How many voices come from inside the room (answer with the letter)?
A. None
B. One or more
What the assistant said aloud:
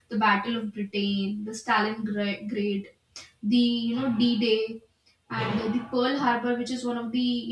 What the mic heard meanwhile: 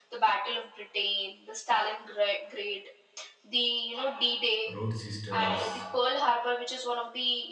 B